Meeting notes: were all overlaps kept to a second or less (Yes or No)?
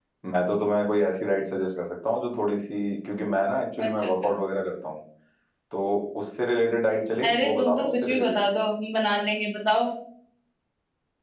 No